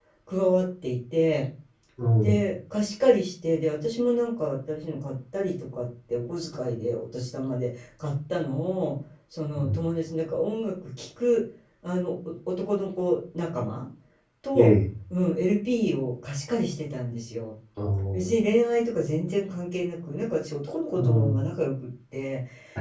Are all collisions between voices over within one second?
Yes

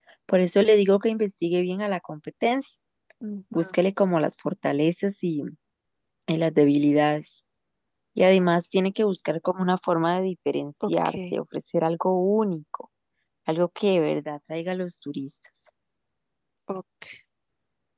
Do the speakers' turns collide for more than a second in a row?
No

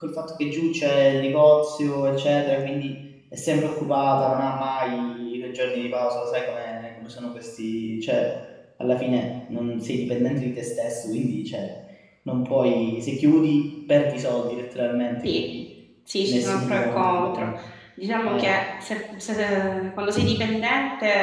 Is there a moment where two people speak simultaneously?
Yes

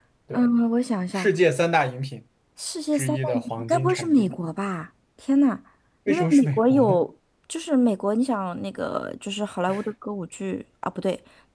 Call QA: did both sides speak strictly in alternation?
No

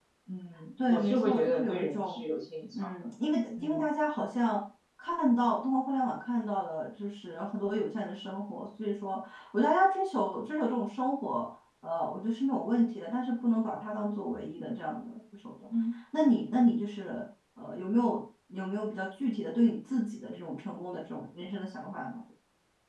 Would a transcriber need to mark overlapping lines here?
Yes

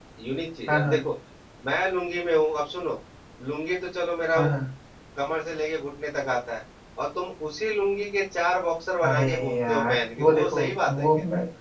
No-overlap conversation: No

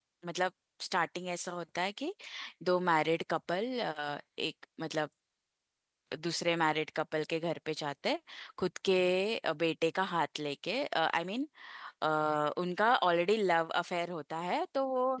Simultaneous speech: No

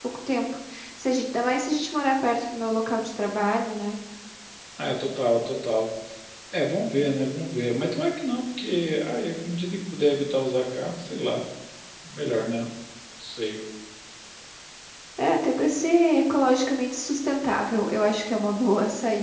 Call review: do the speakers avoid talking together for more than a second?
Yes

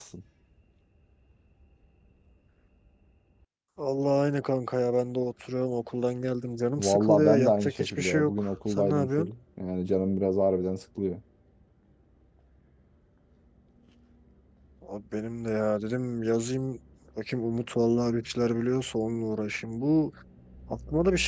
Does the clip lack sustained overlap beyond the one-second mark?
No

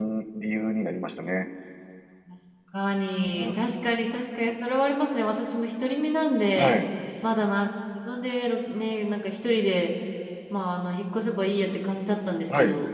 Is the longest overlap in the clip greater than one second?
No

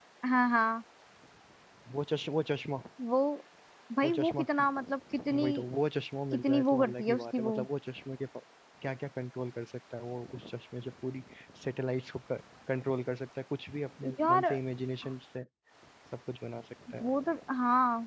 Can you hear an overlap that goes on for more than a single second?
Yes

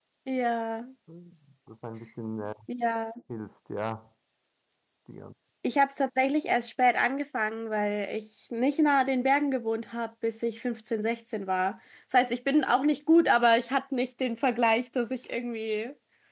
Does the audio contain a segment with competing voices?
No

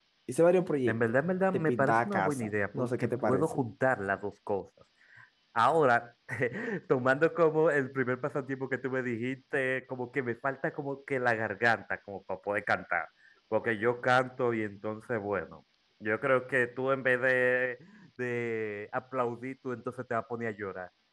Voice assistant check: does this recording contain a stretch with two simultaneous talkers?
Yes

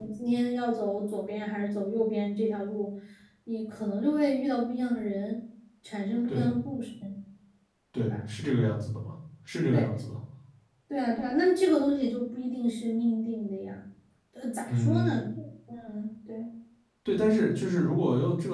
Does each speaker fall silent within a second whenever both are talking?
Yes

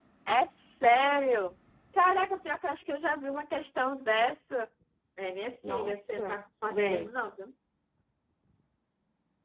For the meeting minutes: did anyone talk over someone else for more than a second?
Yes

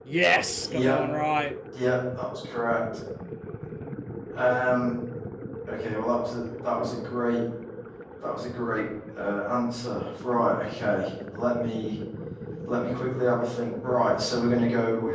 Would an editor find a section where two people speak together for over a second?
No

